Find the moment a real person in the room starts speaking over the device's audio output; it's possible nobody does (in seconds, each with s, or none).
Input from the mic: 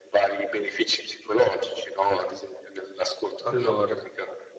3.4 s